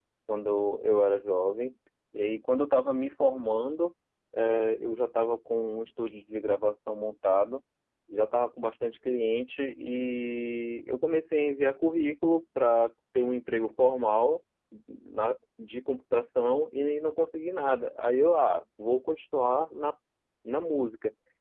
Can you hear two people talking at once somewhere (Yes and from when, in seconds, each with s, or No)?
No